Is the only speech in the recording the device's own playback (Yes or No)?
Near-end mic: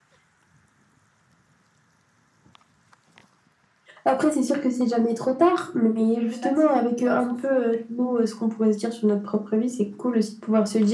No